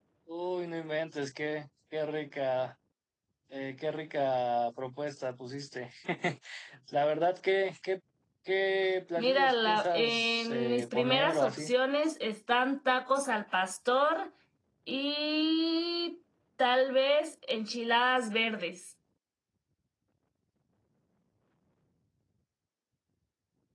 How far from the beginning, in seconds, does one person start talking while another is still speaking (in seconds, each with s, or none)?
9.2 s